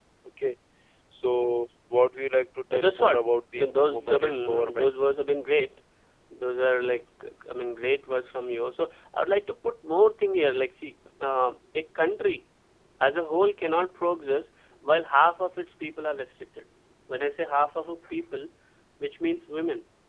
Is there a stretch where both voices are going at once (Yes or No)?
Yes